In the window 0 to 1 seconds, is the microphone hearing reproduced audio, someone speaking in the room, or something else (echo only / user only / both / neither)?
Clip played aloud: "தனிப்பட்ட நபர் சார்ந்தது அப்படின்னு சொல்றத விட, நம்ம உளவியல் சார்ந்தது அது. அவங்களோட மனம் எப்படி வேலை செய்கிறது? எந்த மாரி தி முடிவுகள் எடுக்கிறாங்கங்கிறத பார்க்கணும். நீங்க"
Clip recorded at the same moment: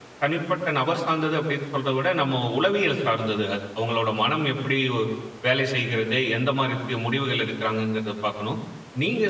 echo only